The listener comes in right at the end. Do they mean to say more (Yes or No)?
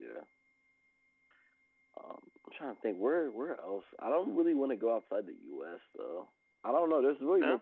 No